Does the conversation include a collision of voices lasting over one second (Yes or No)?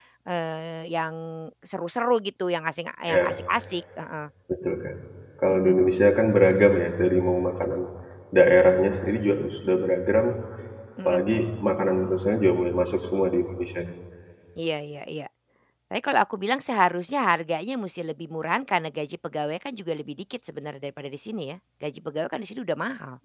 No